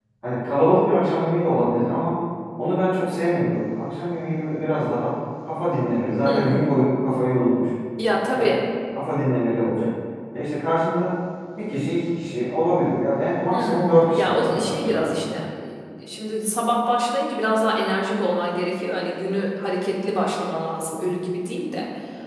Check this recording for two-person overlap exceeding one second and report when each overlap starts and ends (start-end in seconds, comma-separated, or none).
13.5-15.4